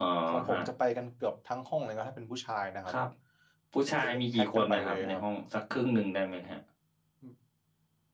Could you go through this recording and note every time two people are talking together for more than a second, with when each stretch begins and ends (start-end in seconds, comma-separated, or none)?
4.0-5.2